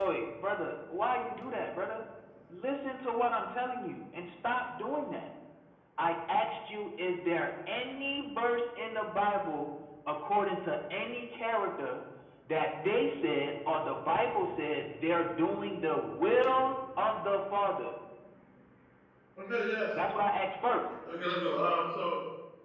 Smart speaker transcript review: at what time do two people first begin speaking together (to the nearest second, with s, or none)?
none